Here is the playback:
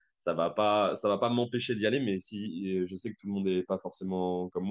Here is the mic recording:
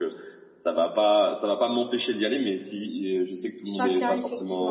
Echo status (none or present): present